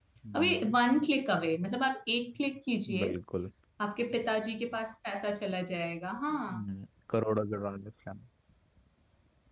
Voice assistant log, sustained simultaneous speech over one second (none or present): none